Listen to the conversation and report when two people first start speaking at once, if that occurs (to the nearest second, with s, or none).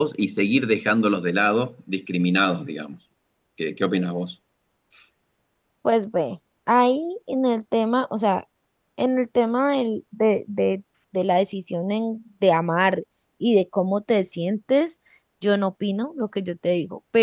none